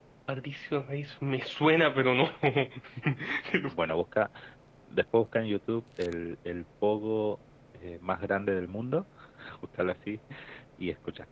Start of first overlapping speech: none

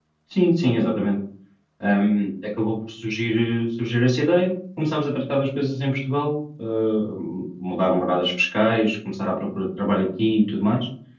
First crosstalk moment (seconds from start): none

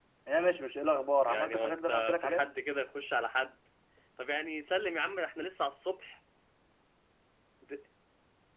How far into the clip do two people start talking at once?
1 s

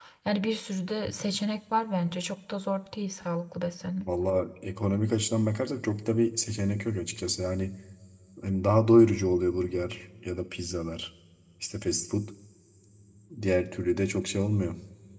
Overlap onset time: none

